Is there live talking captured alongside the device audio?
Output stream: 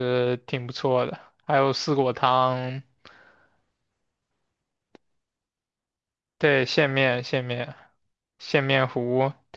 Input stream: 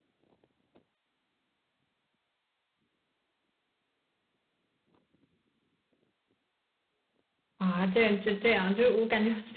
Yes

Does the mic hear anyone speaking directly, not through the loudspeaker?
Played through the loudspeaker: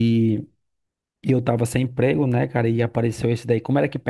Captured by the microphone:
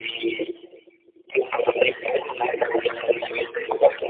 No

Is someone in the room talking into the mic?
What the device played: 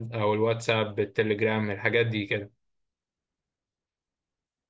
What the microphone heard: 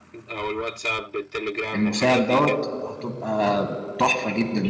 Yes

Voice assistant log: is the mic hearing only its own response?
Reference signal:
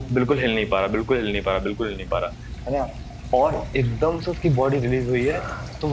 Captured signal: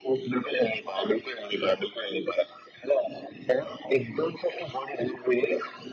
Yes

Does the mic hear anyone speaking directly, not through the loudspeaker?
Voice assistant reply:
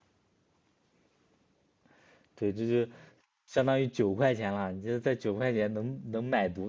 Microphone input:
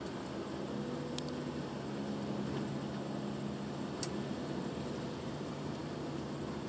No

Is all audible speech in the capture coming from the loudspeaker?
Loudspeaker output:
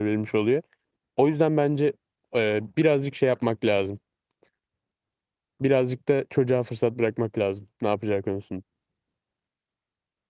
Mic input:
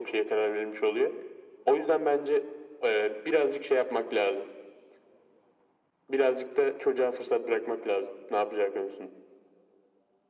Yes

